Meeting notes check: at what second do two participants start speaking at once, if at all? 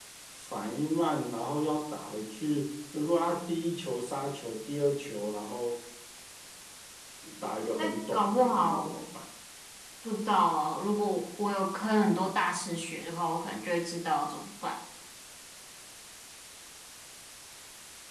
7.8 s

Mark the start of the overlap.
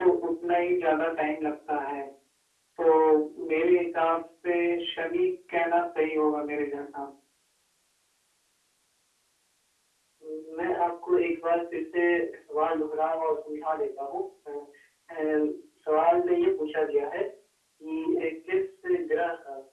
none

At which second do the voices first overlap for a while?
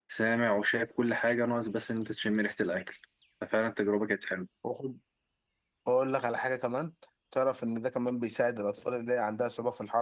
none

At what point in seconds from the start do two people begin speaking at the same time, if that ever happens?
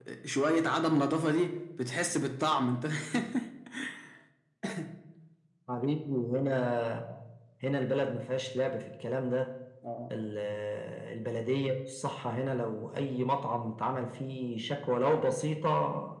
none

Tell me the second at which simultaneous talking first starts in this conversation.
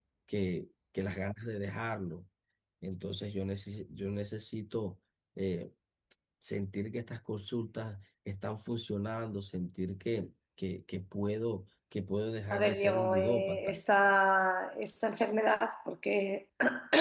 12.5 s

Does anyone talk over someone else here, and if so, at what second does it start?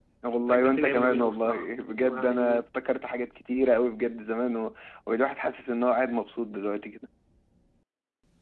0.5 s

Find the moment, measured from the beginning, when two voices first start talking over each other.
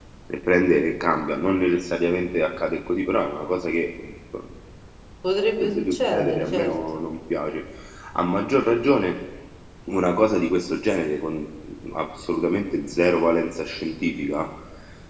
5.6 s

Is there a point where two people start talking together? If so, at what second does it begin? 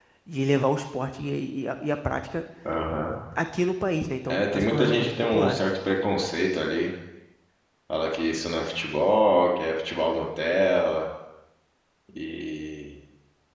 4.3 s

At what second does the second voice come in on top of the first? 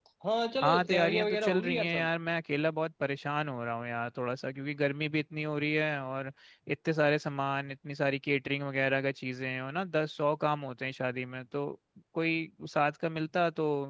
0.6 s

